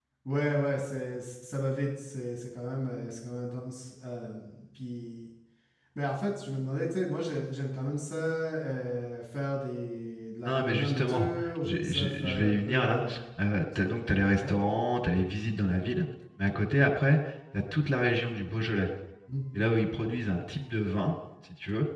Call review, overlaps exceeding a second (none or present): present